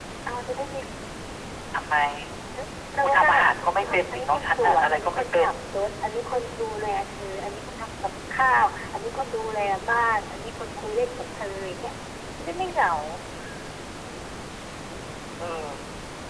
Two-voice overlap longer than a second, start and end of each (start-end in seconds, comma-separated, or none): 3.0-5.5